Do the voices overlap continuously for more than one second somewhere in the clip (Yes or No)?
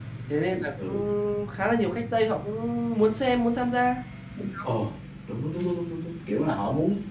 No